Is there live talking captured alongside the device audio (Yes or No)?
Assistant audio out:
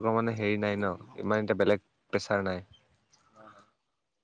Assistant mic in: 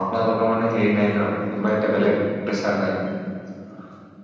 No